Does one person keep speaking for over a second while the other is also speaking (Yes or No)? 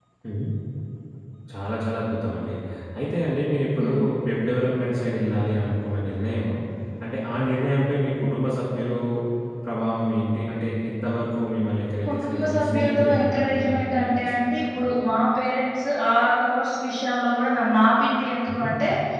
Yes